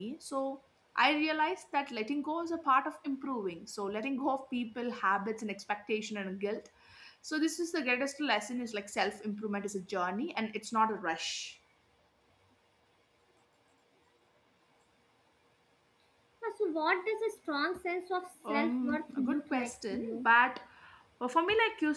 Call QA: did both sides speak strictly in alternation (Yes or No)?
No